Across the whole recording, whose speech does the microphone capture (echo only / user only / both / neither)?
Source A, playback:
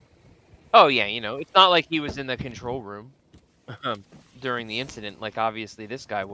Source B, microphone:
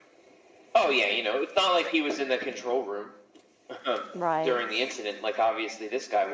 both